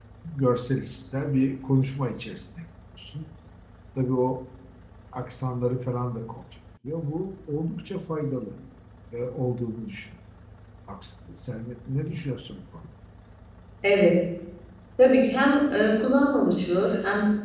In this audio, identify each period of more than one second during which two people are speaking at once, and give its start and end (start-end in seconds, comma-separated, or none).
none